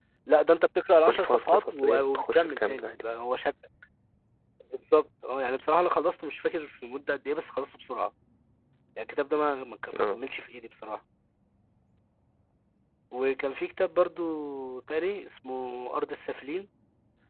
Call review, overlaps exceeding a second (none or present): present